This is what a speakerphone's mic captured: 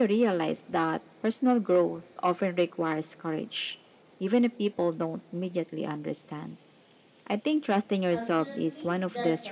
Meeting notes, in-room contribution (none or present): present